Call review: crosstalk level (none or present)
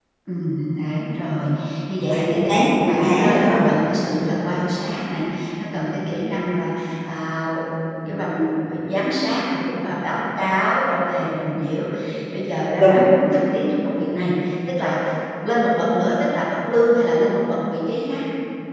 present